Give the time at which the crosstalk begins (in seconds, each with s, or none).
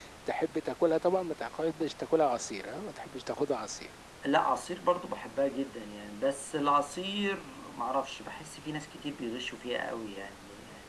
none